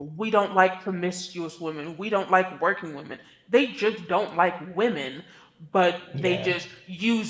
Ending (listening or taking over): listening